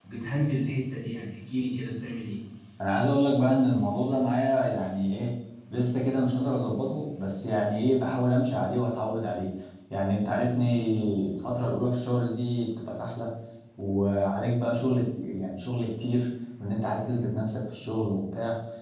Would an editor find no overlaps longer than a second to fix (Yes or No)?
Yes